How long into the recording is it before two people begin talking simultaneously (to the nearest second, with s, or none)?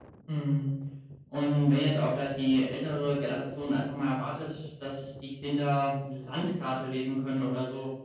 none